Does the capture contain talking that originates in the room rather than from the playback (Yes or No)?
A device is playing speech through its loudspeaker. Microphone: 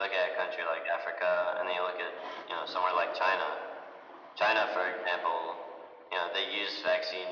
No